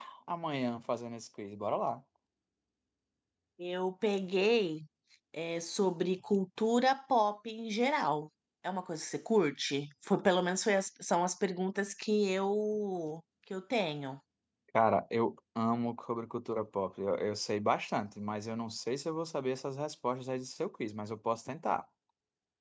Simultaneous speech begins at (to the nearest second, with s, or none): none